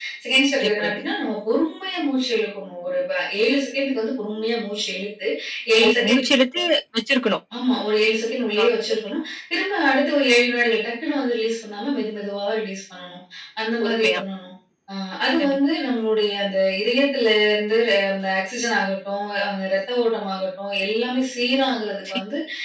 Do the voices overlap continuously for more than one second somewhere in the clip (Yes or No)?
No